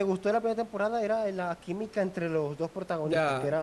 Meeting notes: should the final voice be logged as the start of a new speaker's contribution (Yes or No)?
Yes